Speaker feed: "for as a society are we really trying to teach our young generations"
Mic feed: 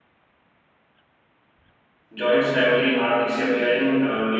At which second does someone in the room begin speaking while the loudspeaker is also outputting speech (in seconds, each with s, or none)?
2.1 s